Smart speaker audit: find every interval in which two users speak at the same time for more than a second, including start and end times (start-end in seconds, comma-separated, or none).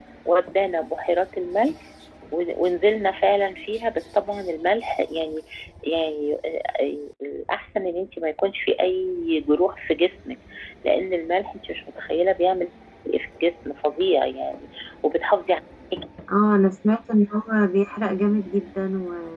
none